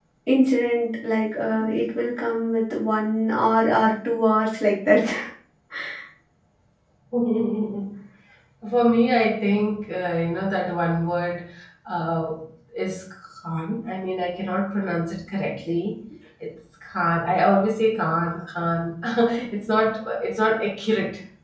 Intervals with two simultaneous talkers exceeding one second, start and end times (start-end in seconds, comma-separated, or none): none